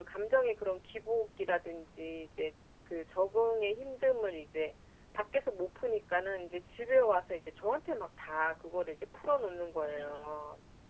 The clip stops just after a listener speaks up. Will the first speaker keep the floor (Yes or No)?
No